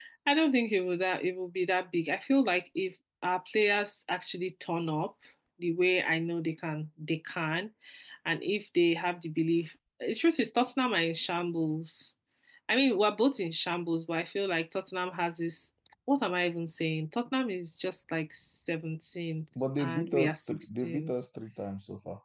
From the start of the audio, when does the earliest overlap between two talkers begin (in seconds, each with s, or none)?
19.6 s